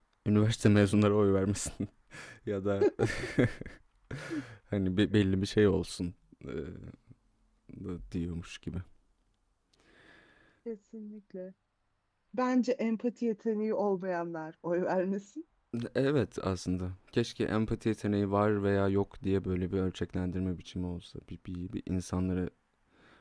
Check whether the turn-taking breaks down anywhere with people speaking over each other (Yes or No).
No